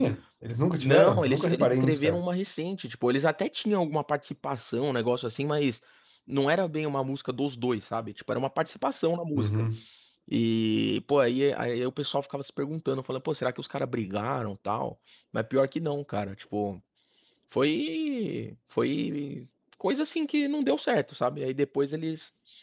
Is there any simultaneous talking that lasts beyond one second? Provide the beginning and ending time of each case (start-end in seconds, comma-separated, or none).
0.8-2.2